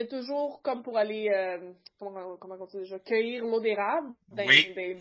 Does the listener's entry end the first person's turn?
No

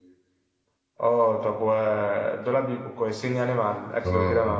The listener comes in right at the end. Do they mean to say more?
Yes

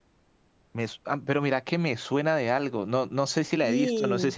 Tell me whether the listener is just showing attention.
Yes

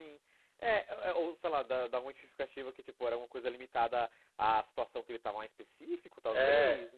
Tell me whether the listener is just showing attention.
No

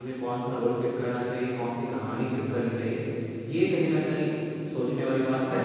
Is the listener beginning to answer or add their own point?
No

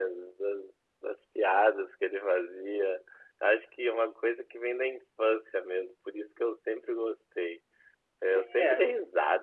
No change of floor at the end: Yes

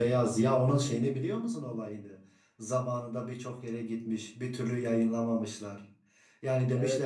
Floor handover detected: No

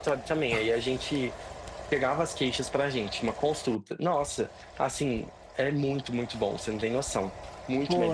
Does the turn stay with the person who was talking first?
No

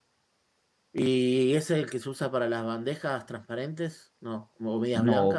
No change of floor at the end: No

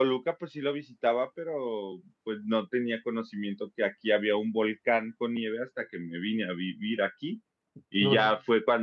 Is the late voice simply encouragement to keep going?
Yes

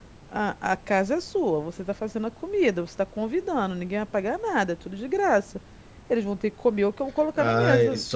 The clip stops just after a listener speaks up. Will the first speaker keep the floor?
No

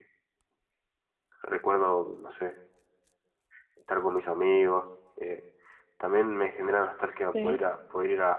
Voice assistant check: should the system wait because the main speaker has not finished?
Yes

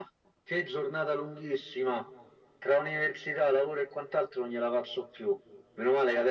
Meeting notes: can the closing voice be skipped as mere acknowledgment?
Yes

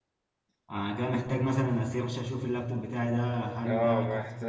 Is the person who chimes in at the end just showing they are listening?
No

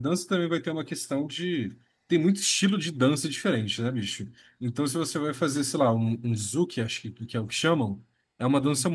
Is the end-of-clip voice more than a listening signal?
No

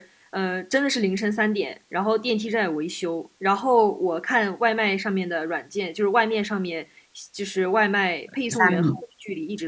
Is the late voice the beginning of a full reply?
No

